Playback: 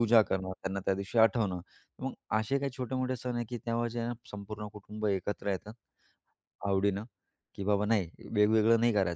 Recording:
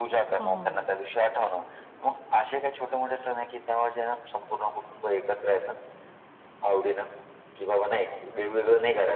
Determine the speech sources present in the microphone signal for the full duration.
both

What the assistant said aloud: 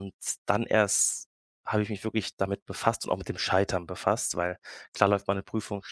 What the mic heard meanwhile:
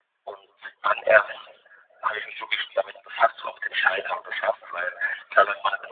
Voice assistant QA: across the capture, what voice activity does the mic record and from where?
echo only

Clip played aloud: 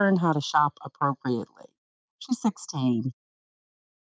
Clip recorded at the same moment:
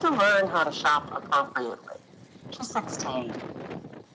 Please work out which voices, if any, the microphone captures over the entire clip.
echo only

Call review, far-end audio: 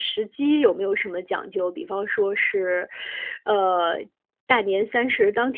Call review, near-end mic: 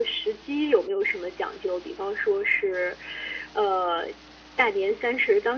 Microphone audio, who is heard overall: echo only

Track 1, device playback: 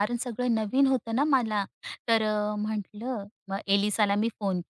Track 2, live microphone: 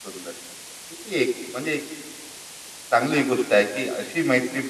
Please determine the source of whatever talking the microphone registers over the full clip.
user only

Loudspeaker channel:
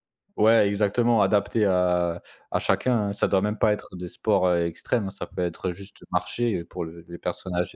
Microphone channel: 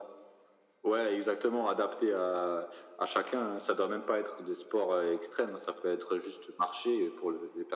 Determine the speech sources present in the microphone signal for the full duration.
echo only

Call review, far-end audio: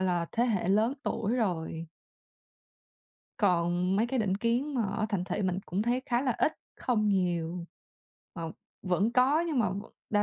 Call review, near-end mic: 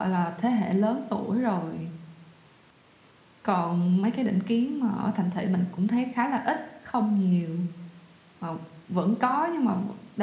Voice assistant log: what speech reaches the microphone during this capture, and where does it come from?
echo only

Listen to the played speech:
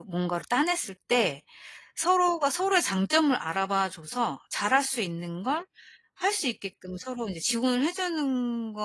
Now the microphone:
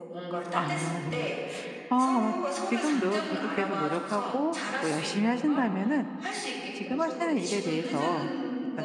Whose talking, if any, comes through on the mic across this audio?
both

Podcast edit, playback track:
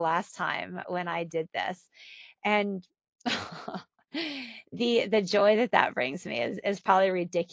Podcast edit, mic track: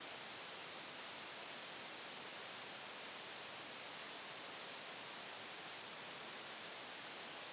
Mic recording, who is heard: neither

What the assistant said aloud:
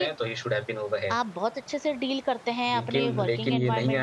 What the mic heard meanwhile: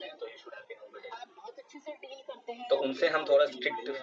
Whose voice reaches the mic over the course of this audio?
both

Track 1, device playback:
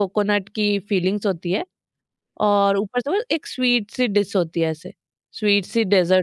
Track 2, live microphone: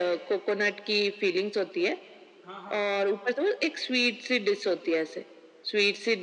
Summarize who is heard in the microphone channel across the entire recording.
both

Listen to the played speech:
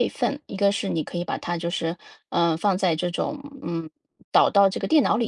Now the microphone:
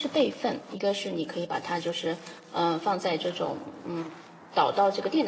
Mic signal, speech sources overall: echo only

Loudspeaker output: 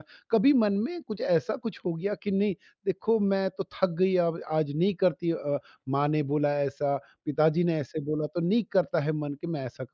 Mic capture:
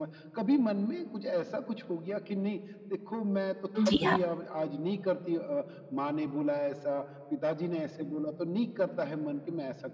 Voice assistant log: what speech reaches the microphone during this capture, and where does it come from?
both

